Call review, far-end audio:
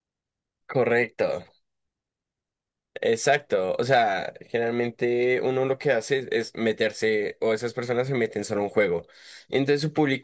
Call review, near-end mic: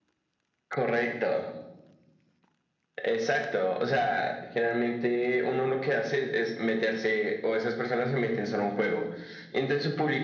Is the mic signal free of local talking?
Yes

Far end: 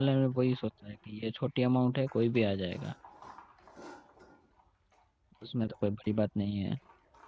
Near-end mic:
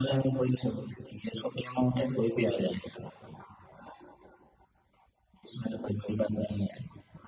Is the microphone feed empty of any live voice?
Yes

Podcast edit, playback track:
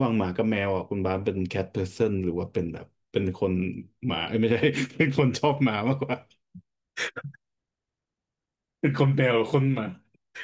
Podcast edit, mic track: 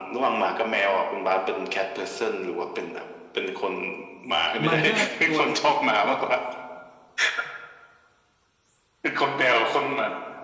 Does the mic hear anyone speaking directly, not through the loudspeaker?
Yes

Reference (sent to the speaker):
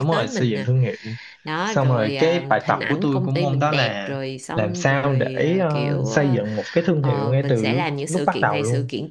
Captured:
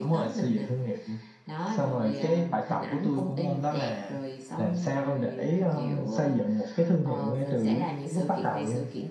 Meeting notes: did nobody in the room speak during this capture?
Yes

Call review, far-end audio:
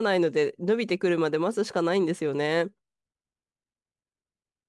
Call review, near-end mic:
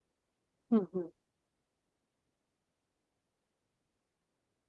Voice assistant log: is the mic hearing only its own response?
No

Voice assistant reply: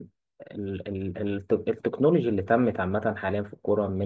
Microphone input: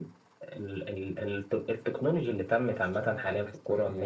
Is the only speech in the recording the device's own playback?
No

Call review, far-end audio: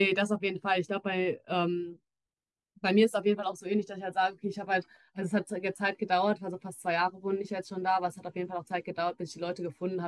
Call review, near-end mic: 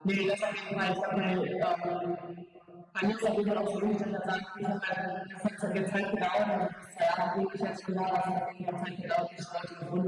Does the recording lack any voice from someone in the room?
Yes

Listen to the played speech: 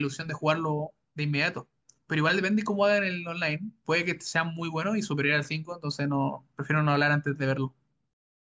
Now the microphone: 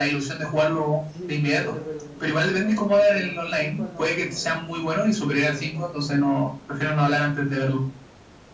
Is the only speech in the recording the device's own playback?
No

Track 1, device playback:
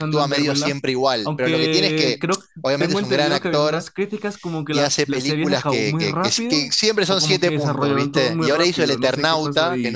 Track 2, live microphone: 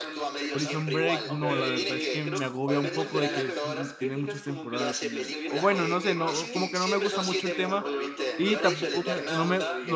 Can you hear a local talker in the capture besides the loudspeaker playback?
Yes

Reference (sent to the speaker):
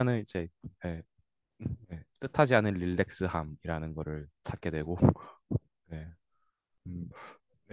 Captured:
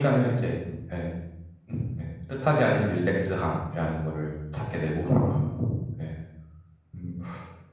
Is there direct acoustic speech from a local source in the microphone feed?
No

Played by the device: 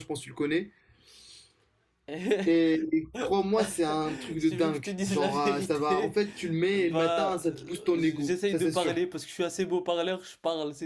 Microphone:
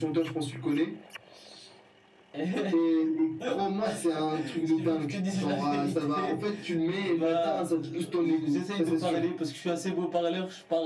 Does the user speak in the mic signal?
No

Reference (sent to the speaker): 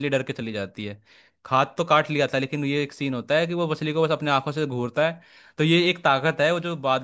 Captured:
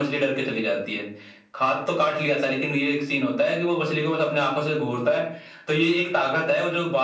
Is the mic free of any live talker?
Yes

